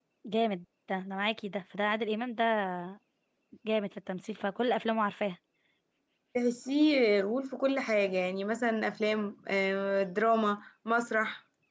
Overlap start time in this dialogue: none

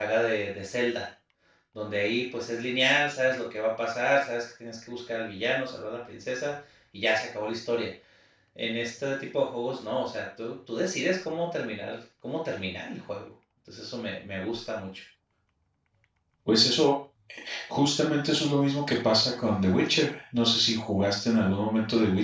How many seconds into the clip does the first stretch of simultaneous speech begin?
none

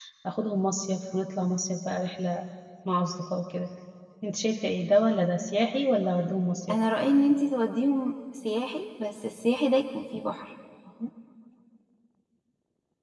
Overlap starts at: none

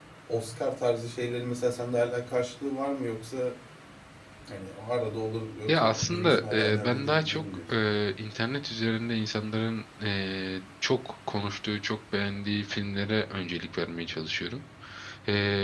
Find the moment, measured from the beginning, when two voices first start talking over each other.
6 s

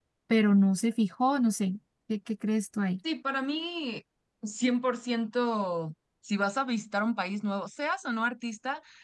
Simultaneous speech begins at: none

